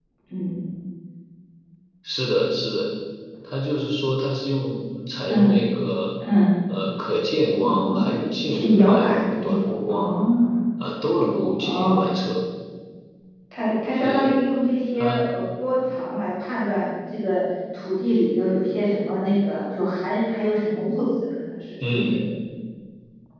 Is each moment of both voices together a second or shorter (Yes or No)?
No